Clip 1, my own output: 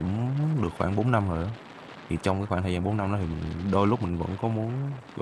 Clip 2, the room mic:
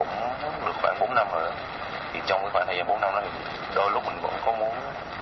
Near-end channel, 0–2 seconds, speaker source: echo only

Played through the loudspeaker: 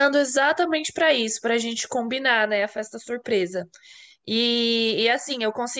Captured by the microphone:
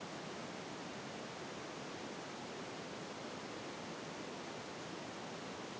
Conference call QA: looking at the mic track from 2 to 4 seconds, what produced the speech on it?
neither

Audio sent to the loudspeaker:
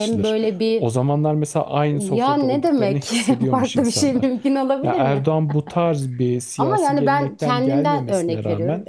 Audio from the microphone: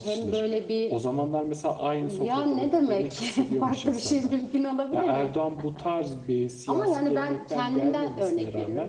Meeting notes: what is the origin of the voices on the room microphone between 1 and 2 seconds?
echo only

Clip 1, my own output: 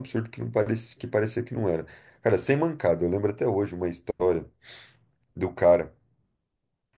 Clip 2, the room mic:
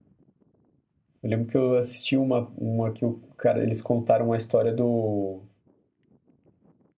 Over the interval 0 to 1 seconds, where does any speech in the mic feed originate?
neither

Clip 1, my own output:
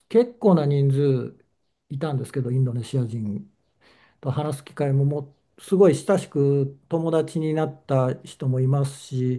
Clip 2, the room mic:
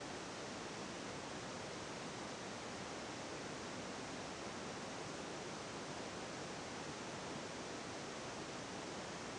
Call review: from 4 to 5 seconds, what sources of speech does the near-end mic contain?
neither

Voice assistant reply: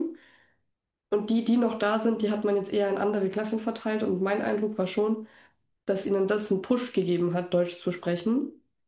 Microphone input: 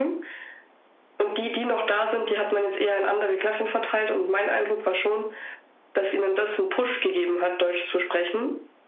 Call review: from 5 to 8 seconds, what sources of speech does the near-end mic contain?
echo only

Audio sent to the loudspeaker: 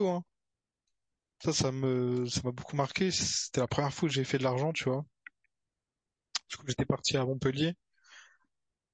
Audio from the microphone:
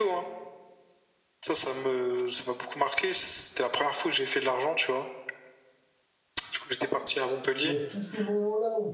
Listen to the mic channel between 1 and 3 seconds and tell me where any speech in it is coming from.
echo only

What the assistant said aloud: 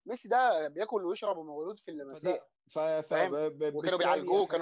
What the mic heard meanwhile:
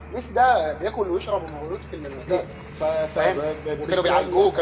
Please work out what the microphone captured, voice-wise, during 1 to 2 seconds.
echo only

